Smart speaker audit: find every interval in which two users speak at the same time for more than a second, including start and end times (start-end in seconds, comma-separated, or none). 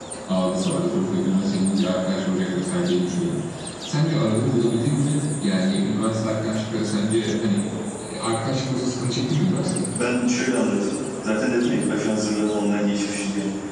none